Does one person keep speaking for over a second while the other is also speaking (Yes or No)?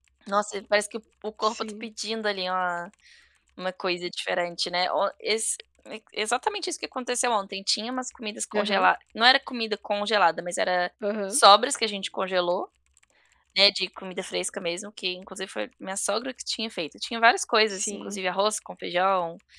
No